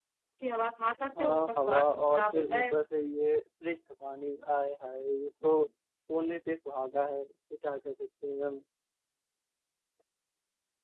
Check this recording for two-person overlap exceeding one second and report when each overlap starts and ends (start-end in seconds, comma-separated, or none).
1.0-2.8